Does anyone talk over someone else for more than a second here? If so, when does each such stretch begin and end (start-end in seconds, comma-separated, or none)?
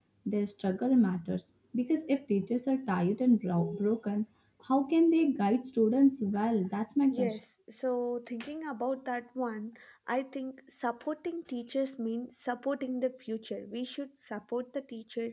none